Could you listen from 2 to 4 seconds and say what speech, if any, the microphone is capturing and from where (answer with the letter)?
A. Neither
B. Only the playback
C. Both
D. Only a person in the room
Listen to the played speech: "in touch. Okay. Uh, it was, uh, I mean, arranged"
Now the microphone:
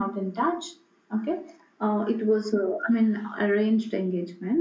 B